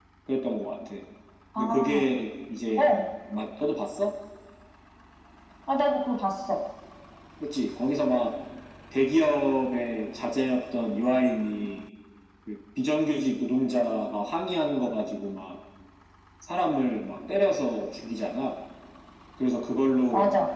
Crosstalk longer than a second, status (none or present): none